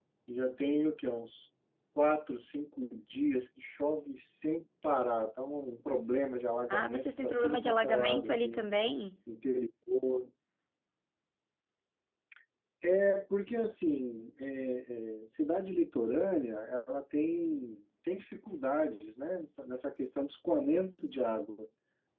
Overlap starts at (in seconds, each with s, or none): 6.7 s